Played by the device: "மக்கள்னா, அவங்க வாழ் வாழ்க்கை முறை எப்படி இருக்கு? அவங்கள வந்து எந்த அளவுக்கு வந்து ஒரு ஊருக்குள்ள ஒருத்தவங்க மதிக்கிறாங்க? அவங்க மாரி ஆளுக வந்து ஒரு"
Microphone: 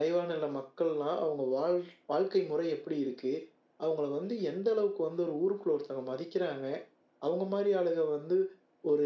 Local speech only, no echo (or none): none